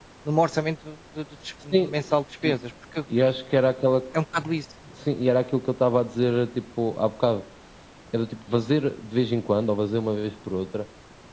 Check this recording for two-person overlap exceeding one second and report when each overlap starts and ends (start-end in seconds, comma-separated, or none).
none